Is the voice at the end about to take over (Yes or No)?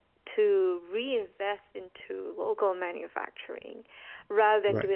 No